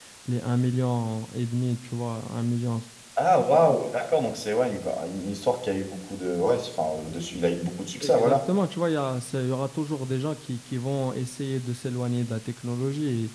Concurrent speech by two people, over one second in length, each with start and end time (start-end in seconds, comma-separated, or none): none